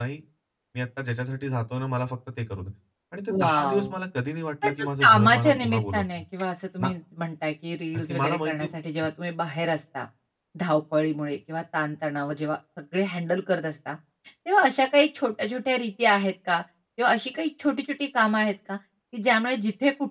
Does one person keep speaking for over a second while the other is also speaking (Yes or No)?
Yes